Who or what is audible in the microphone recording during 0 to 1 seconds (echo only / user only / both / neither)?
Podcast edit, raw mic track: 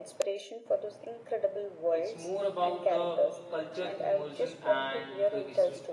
echo only